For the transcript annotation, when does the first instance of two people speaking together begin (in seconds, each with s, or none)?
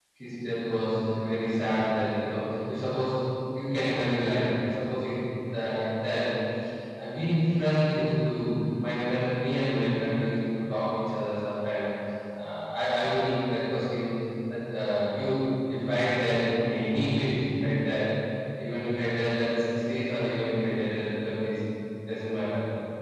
none